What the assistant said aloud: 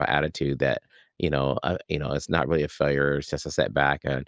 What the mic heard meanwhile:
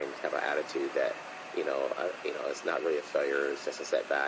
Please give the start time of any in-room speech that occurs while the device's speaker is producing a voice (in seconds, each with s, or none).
none